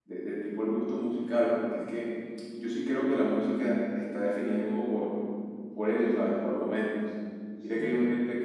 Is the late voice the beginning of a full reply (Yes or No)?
No